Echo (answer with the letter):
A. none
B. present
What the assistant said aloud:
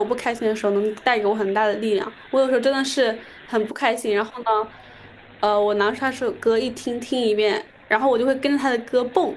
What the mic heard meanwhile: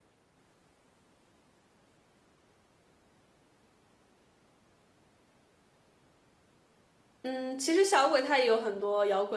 A